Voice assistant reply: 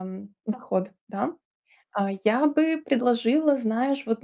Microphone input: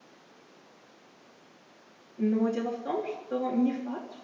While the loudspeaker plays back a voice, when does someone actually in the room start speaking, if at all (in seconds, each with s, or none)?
2.2 s